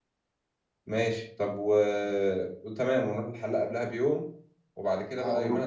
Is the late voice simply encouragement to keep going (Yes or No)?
Yes